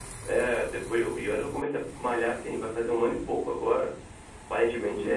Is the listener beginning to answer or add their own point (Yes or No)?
Yes